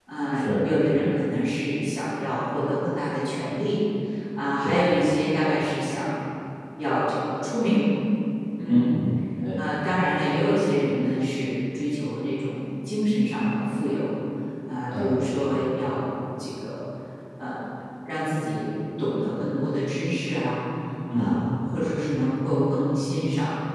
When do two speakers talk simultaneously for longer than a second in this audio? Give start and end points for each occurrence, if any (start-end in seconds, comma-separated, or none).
none